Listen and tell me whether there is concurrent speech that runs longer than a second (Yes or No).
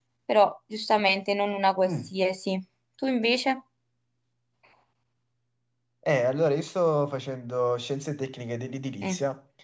No